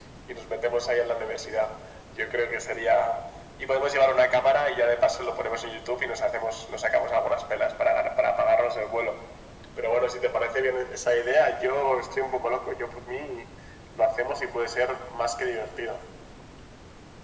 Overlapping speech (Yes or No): No